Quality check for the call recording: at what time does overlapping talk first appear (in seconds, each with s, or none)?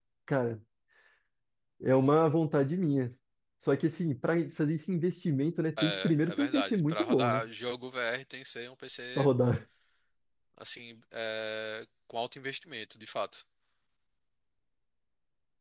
5.8 s